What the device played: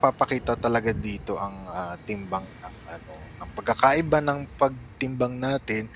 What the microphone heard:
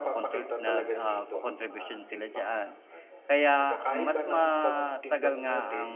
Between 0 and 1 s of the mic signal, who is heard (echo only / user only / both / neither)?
both